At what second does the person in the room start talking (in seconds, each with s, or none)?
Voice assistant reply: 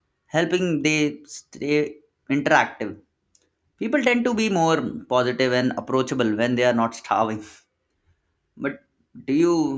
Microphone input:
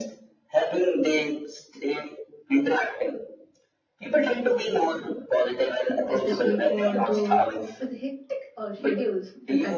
6.1 s